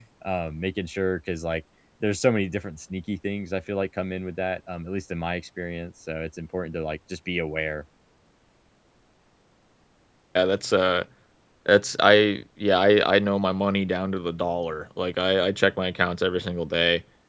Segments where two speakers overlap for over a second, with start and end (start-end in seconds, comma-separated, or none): none